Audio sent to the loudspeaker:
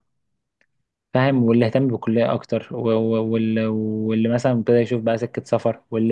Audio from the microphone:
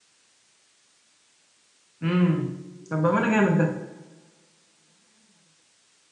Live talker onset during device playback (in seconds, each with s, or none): 2.0 s